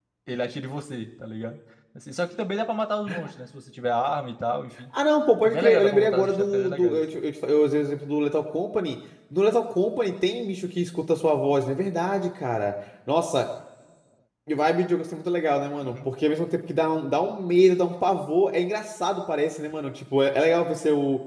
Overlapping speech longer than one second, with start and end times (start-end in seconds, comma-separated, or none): 5.4-7.0